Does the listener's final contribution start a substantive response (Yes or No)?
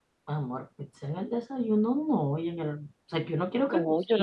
Yes